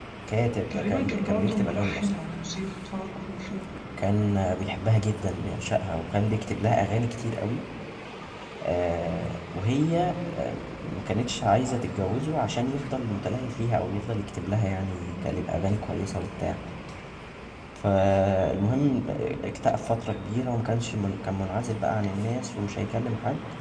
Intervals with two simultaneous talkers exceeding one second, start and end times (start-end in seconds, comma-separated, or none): 0.7-2.1